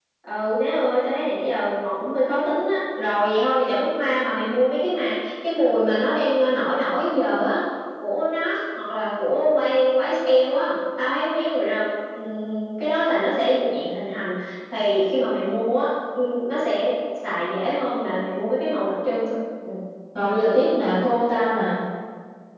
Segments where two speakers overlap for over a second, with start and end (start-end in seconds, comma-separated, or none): none